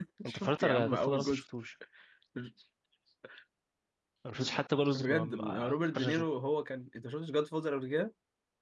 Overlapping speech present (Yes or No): Yes